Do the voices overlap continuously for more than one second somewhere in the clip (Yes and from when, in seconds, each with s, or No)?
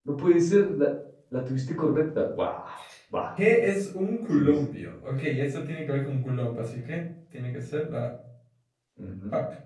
No